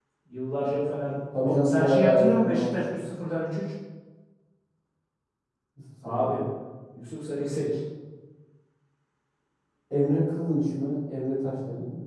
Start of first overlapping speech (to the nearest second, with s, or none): 1 s